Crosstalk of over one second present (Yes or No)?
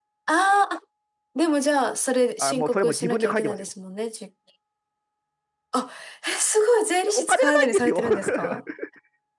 Yes